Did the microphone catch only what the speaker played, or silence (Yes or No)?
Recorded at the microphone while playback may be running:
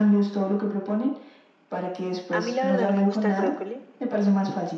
No